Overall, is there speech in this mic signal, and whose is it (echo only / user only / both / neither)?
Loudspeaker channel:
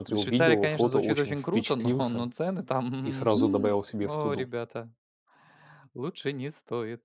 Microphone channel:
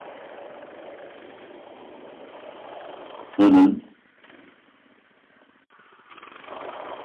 user only